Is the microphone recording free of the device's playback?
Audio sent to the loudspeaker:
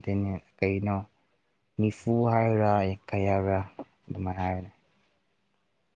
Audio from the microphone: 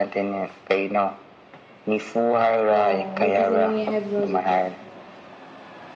No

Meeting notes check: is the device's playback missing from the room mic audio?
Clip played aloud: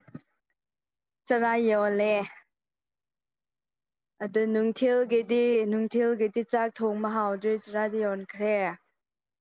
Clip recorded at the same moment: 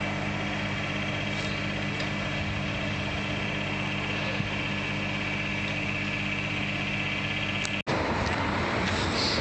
Yes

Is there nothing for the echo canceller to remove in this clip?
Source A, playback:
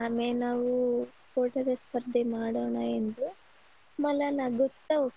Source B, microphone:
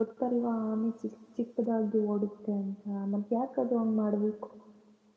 Yes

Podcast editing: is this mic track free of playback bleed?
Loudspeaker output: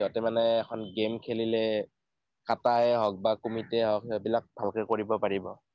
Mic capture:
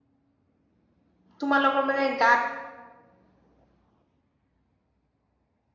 Yes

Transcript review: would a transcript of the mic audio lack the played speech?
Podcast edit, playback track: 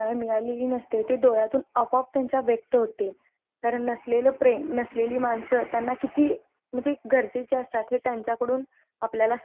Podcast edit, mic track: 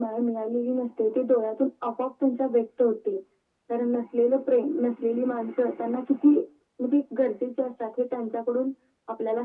No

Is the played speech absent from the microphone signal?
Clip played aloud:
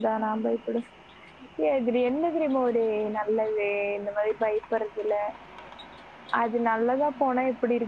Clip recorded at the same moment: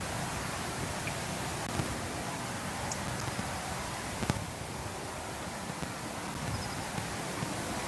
Yes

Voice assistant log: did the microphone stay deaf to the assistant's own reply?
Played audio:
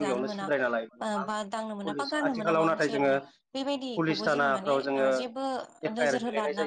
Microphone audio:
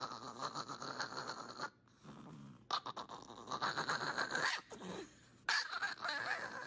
Yes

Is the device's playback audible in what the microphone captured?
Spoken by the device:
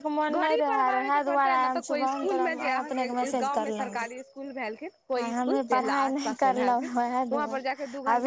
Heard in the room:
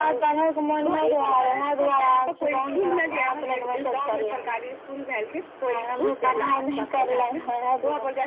Yes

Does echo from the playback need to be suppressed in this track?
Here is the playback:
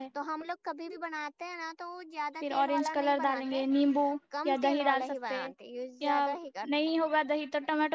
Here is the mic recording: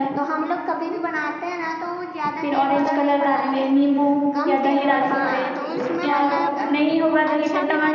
Yes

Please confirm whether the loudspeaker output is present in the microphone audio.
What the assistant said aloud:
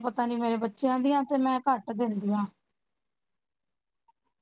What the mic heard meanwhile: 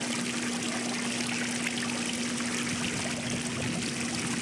No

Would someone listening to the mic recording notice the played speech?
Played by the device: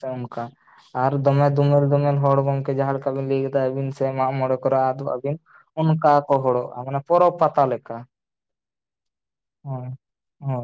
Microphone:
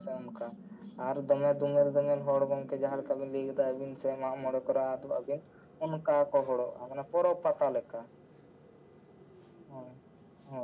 Yes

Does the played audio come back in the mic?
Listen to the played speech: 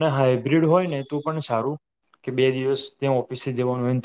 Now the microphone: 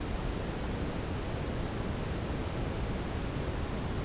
No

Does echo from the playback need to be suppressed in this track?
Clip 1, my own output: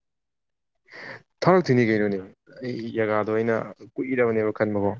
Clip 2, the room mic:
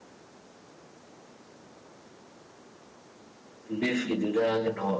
No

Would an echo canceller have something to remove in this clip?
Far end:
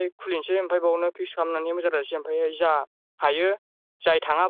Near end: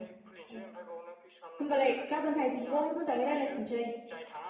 Yes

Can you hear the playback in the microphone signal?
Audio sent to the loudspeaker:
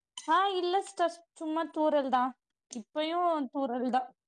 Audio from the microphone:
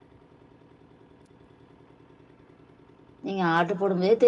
No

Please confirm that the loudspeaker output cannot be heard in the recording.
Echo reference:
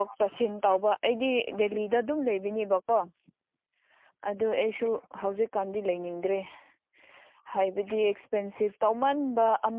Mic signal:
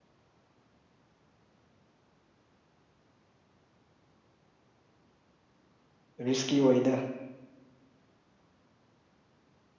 Yes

